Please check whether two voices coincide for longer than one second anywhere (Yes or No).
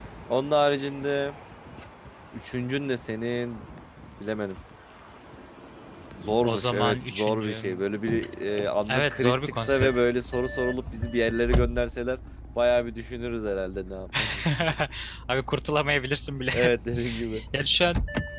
Yes